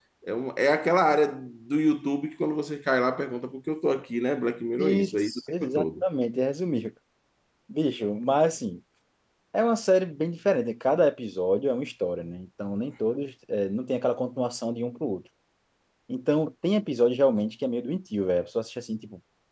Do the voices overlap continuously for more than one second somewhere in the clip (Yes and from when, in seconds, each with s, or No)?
Yes, from 4.8 s